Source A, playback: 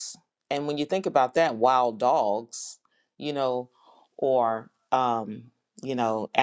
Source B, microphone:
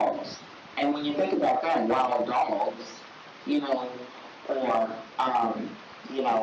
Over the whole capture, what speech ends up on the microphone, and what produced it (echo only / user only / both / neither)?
echo only